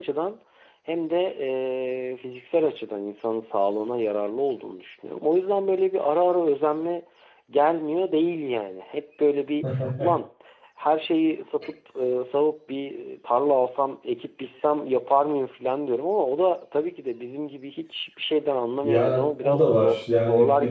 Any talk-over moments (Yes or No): Yes